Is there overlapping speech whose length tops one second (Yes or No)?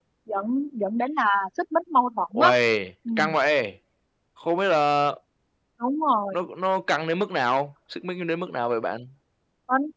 No